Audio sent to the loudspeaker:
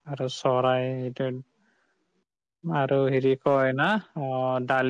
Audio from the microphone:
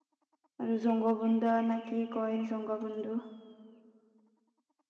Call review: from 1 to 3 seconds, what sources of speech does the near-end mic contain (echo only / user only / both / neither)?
user only